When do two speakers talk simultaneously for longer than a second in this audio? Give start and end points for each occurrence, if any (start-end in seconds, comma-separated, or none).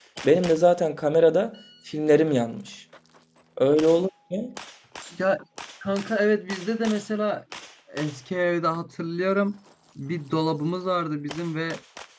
none